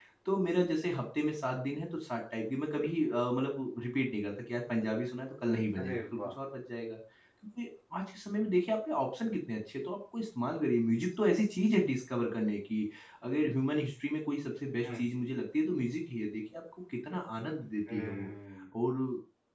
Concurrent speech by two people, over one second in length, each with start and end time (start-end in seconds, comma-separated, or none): none